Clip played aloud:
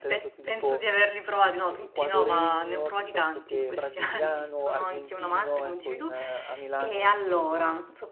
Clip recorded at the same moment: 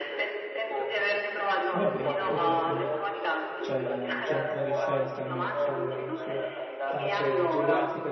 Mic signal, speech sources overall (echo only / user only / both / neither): both